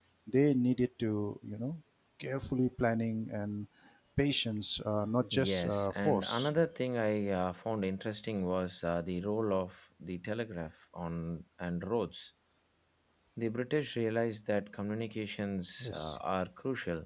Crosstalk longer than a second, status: present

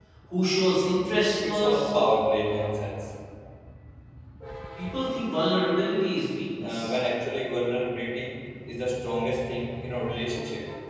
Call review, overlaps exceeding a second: none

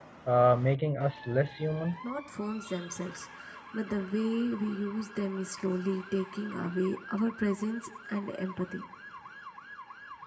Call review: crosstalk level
none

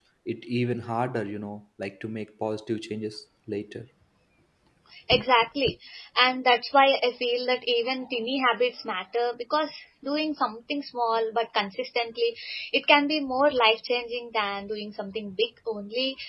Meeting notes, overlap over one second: none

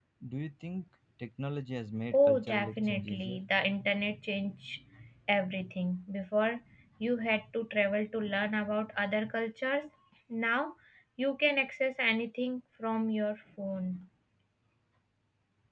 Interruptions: present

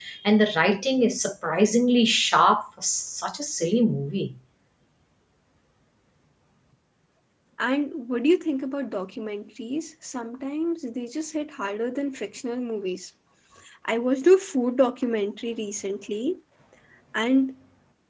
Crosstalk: none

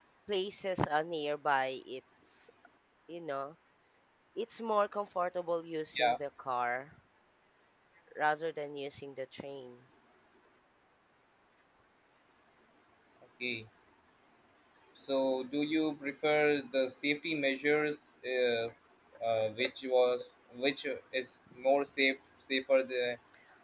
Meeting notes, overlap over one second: none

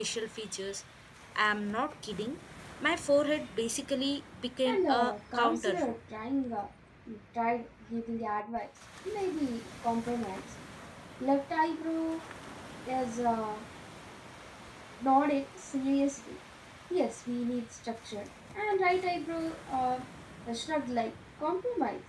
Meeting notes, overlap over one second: present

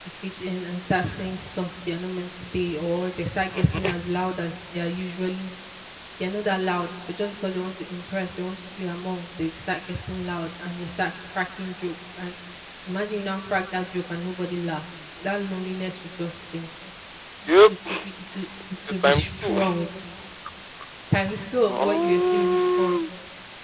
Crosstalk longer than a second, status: present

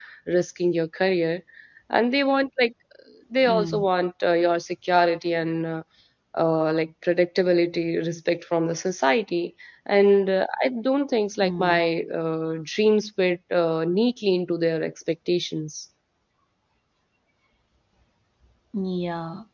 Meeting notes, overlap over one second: none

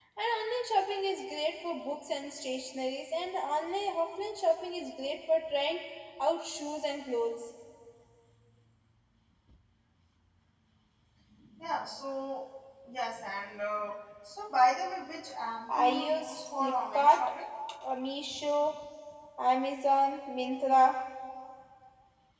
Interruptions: present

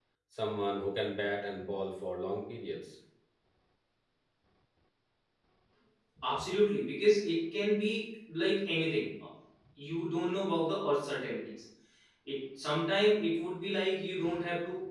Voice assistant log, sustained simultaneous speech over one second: none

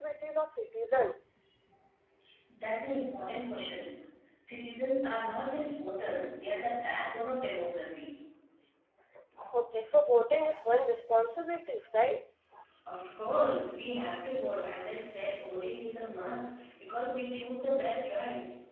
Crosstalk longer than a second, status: none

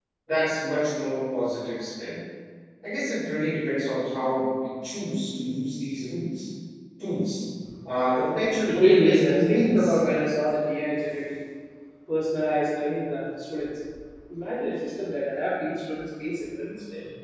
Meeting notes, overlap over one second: present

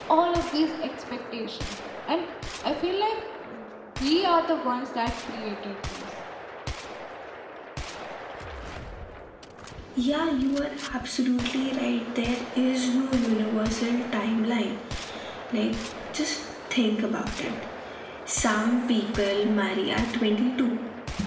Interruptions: none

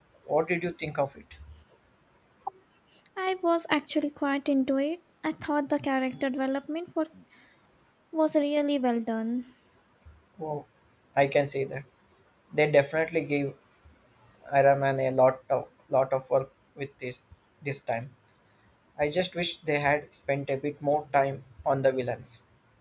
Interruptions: none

